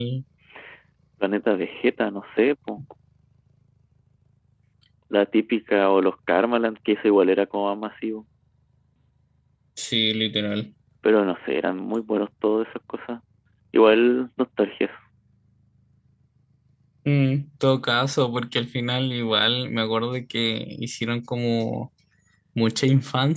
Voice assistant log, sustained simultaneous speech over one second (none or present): none